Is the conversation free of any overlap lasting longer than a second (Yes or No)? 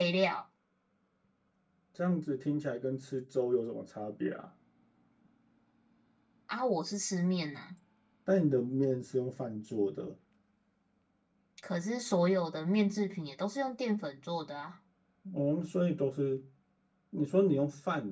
Yes